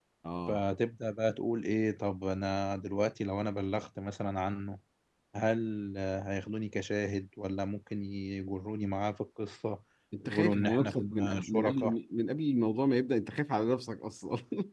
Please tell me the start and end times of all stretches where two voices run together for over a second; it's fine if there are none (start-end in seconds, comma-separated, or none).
10.2-11.9